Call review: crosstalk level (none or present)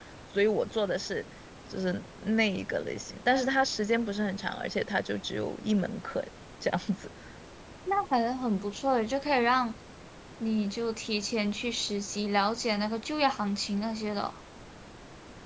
none